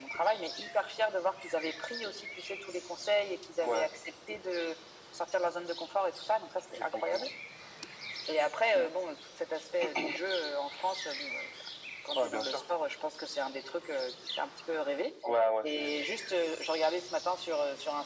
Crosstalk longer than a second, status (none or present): none